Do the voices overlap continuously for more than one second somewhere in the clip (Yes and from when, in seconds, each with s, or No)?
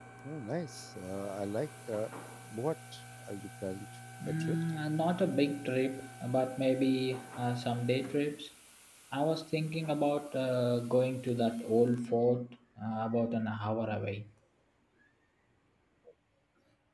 No